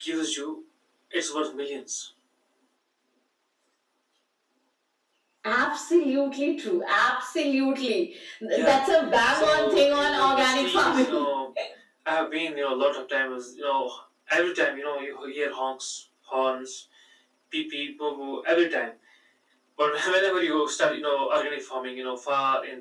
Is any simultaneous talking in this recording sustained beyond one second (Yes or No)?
Yes